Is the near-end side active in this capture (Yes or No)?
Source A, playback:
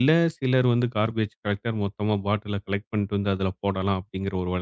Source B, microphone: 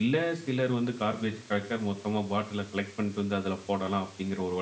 No